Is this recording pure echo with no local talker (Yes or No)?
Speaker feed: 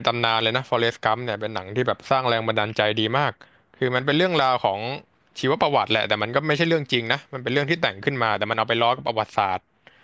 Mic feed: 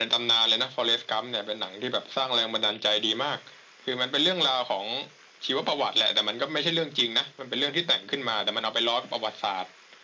Yes